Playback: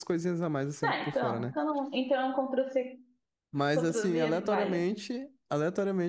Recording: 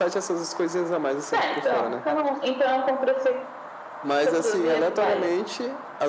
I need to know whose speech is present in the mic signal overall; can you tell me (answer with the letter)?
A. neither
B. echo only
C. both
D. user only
B